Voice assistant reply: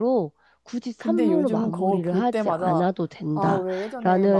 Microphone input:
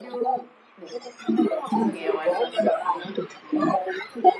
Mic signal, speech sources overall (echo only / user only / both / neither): both